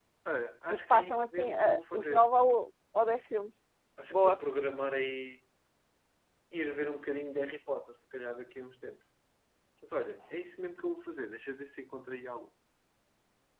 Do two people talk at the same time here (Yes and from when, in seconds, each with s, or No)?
Yes, from 0.7 s